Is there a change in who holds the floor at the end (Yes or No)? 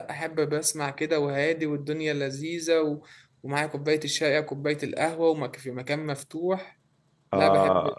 Yes